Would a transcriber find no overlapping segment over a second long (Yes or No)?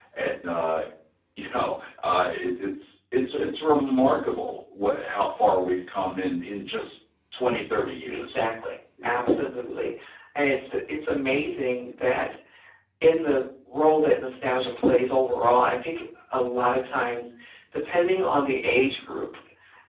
Yes